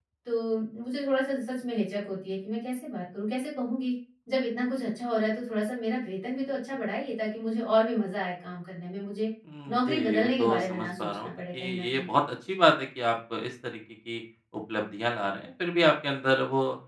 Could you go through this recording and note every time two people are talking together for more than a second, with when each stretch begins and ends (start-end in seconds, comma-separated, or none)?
9.7-12.1